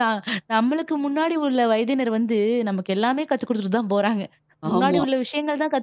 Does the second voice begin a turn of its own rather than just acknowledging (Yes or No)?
No